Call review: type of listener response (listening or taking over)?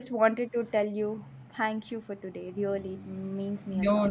taking over